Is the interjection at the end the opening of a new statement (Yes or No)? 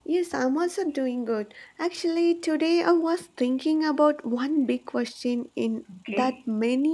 No